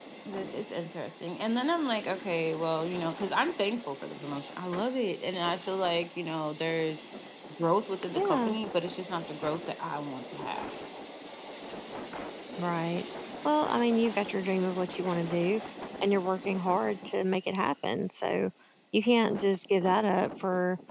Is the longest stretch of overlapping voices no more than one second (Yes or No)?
Yes